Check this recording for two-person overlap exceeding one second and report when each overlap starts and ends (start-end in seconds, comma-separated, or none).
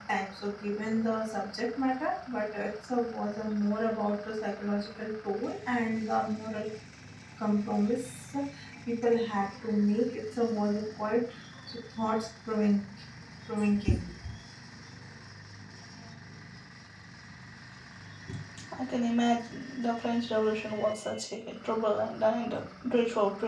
none